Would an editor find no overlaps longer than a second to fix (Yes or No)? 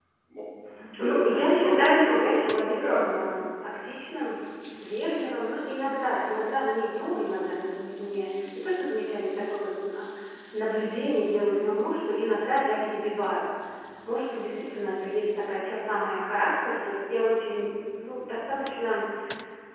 No